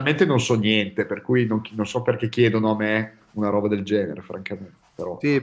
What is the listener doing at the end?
taking over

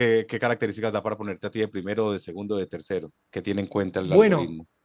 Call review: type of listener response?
taking over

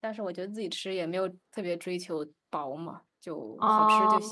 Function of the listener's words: taking over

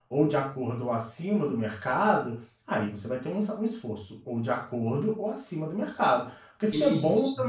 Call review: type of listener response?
listening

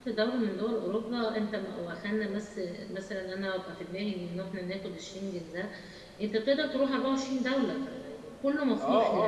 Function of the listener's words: taking over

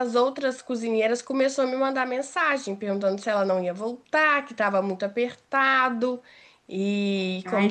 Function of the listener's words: taking over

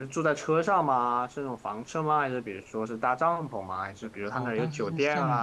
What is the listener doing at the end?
taking over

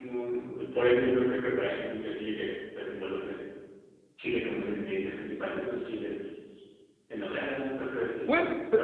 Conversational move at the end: taking over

